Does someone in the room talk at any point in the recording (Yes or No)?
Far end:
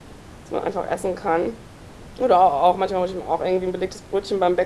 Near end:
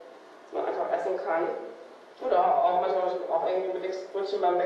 No